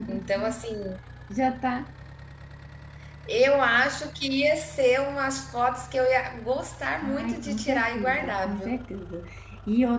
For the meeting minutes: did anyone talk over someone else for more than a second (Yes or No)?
Yes